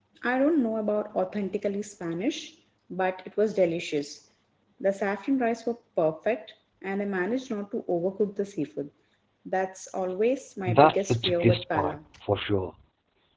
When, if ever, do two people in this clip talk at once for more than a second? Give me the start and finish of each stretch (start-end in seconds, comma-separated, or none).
10.7-12.0